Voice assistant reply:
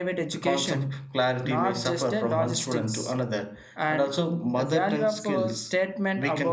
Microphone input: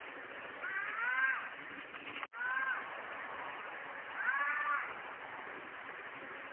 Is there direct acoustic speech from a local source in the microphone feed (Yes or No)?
No